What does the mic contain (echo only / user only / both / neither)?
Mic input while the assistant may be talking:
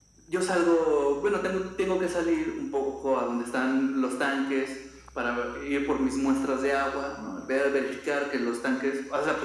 echo only